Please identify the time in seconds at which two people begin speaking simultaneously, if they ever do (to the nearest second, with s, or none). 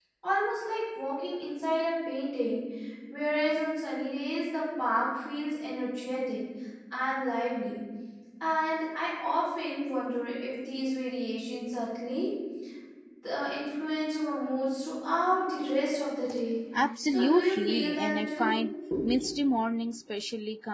17 s